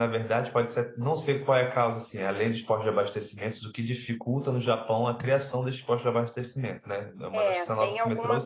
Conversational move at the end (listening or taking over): taking over